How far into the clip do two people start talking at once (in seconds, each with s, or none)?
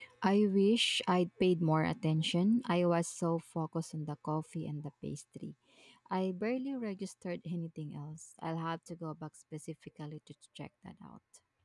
none